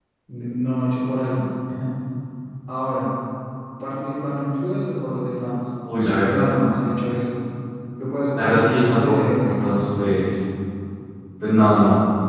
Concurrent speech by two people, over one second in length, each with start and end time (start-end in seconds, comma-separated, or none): 8.4-9.8